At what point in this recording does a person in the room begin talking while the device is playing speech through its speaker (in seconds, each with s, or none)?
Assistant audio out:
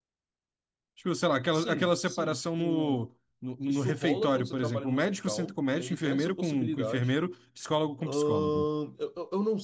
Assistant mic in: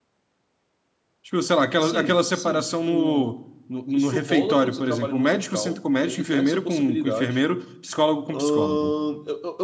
none